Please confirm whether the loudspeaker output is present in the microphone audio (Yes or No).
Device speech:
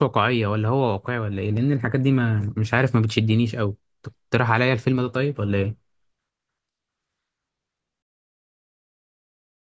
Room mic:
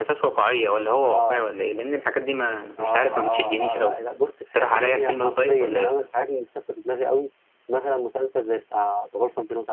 Yes